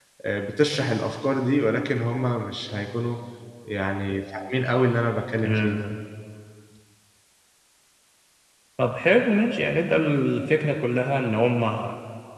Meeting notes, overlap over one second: none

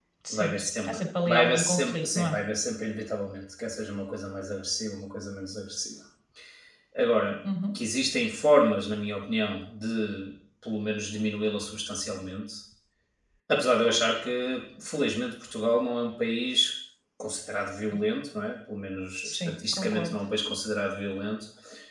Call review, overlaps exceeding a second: present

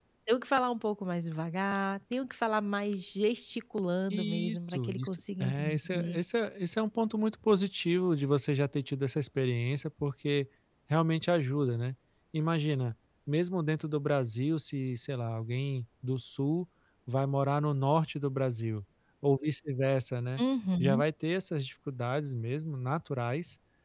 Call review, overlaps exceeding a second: present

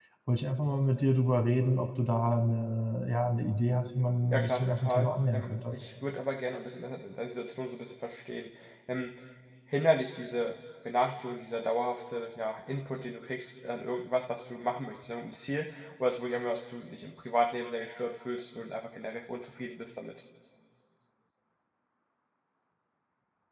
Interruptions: present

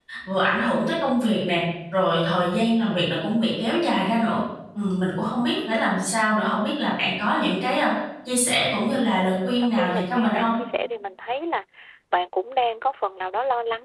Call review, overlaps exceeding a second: present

